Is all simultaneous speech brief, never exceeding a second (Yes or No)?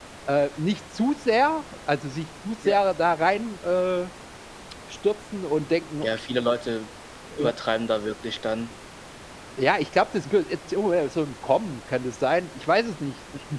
Yes